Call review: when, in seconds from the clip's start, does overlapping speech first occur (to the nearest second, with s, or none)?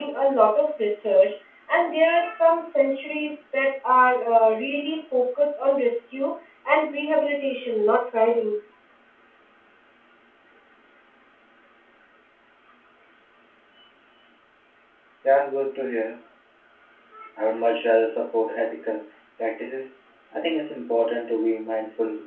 none